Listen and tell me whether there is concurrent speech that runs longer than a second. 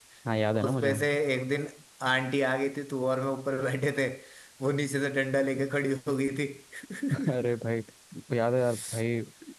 No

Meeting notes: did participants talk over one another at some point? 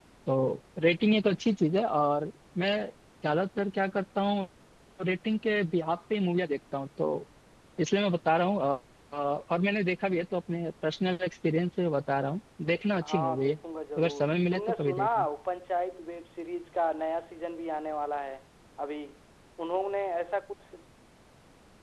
Yes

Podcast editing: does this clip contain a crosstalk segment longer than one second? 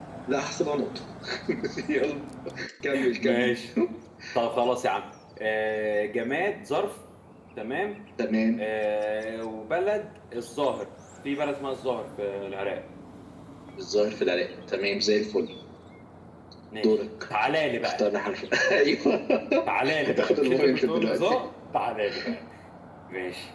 Yes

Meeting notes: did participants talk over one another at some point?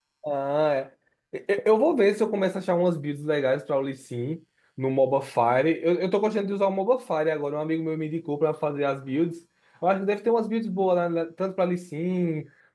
No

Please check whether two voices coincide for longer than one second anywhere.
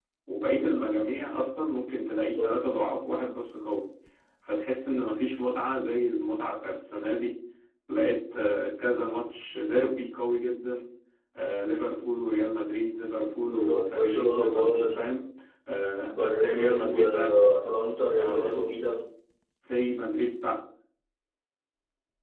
Yes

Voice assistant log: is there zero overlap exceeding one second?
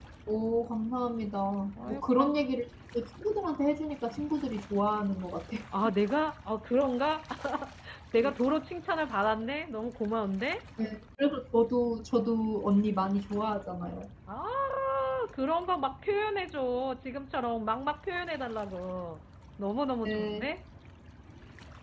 Yes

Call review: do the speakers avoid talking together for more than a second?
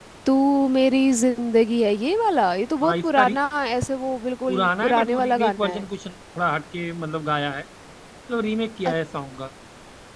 No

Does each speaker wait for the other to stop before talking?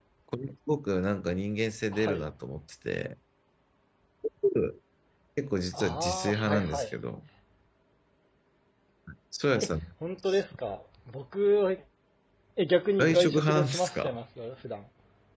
No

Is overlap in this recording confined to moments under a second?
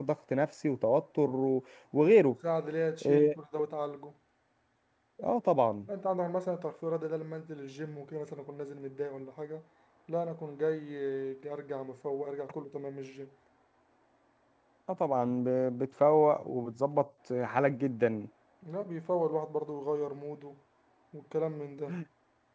Yes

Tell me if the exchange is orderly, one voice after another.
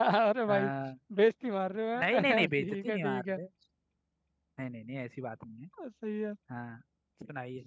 No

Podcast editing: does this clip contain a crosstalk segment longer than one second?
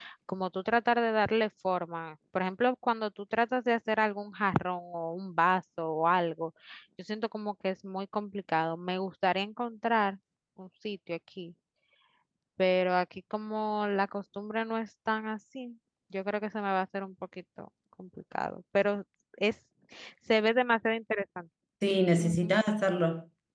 No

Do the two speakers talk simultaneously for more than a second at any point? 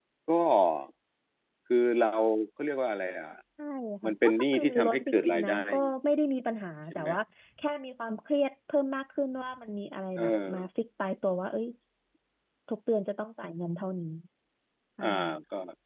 Yes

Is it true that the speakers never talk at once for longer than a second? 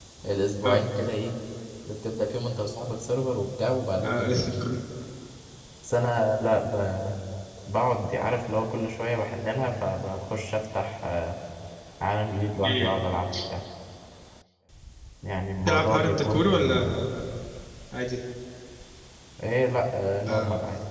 No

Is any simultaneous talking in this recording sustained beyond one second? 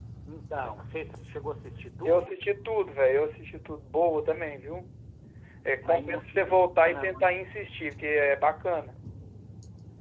Yes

